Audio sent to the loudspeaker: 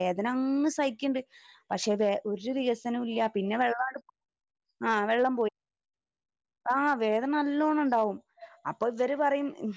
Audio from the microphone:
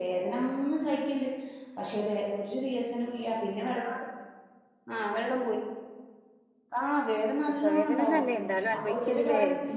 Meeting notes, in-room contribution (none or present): present